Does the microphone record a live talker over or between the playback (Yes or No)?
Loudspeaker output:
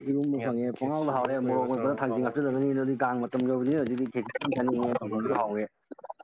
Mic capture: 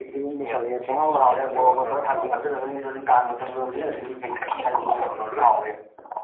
No